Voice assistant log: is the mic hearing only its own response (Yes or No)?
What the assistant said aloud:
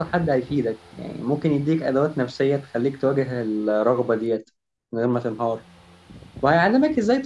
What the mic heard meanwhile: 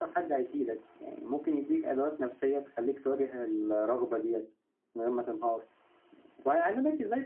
Yes